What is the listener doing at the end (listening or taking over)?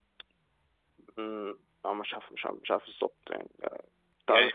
taking over